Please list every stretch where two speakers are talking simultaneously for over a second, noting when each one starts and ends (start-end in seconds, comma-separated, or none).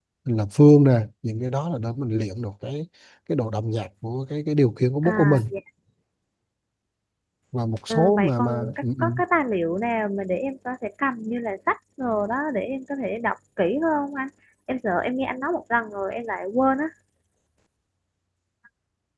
7.9-9.1